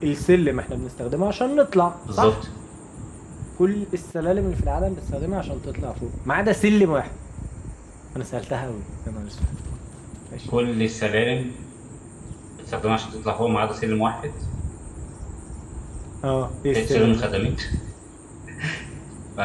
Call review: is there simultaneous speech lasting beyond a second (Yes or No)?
No